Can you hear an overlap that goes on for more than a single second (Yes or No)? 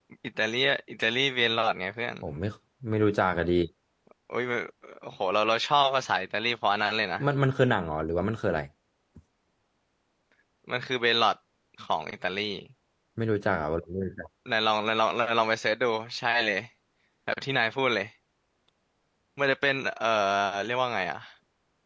No